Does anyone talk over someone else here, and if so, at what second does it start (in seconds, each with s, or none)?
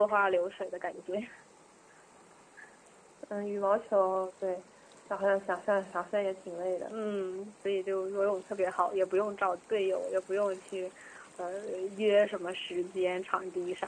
none